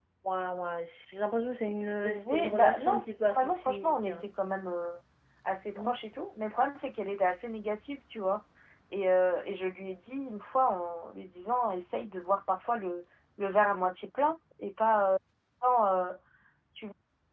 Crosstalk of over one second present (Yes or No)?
Yes